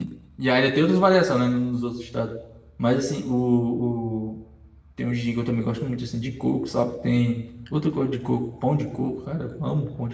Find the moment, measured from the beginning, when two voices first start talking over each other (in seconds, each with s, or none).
none